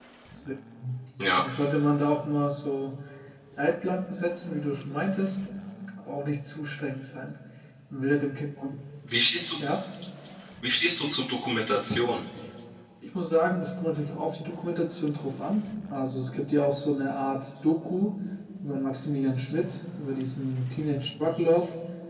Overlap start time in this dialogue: none

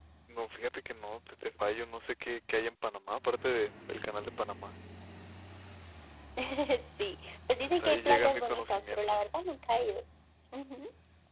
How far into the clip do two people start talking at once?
7.6 s

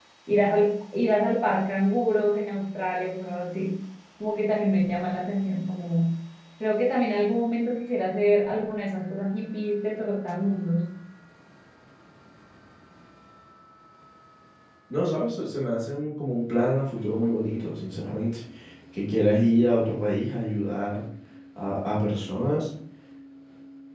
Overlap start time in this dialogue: none

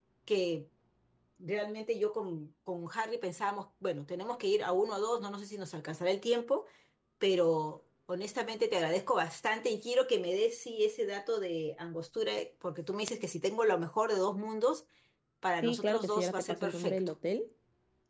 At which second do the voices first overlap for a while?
15.6 s

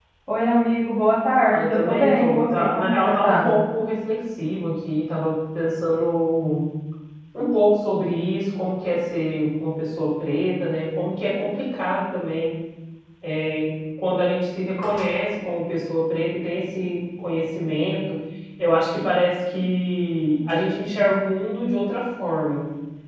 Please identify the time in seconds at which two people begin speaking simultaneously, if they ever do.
1.5 s

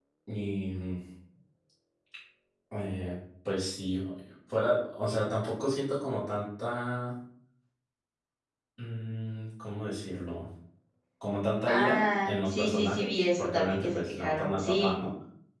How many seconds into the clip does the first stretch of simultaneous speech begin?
11.7 s

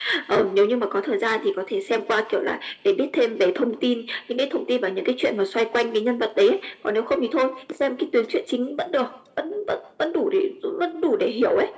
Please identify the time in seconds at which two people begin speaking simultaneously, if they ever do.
none

